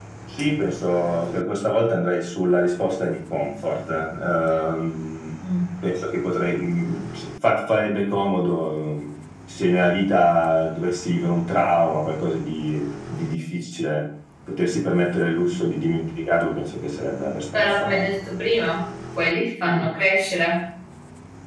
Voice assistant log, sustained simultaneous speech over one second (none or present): none